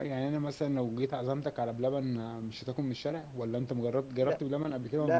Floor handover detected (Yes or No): Yes